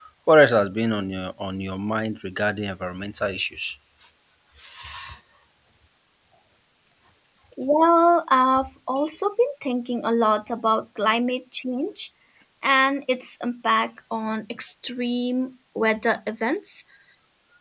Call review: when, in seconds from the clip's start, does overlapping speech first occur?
none

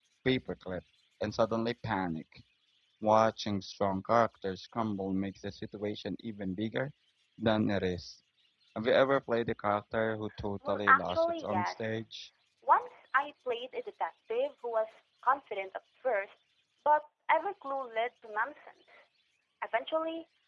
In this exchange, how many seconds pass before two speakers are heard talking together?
10.6 s

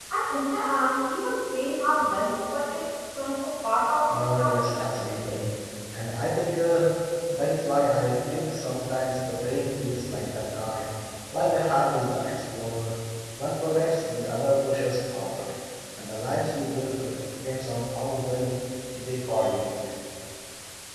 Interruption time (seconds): 4.1 s

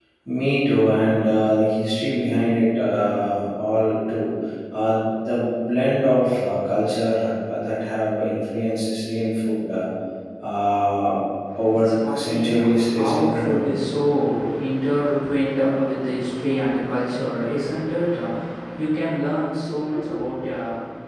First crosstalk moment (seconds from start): 11.7 s

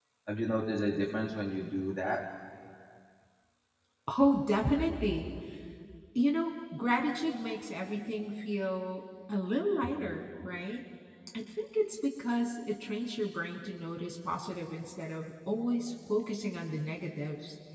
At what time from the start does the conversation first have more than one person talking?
none

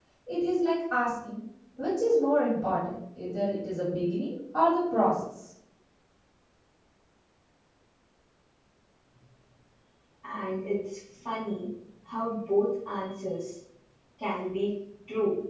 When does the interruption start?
none

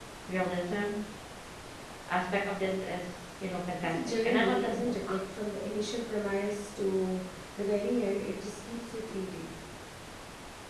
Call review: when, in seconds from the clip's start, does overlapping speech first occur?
3.8 s

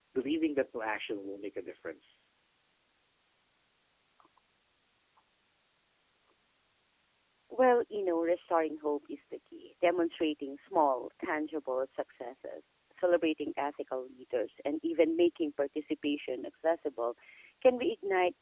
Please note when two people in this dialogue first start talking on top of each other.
none

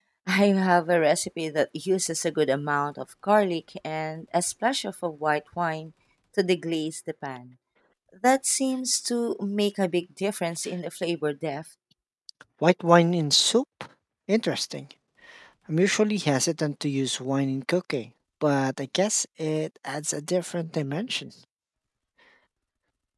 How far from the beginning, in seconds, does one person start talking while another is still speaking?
none

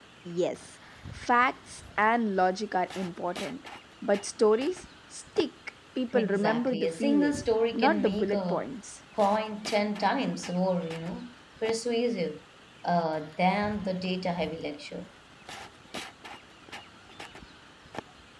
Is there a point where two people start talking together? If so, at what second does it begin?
6.1 s

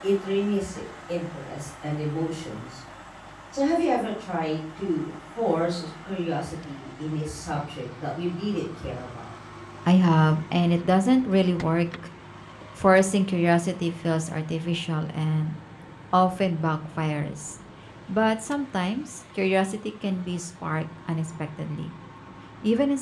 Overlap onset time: none

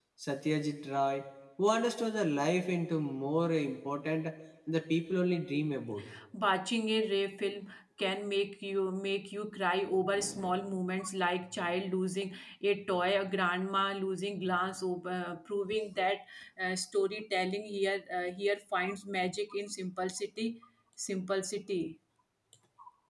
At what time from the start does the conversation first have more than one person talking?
none

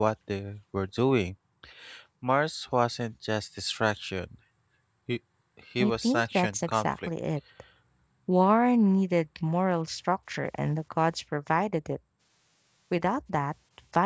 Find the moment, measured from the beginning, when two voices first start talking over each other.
5.8 s

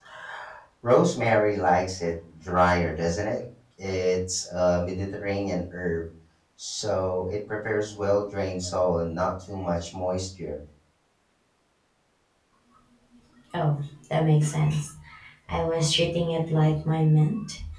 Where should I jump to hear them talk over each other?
none

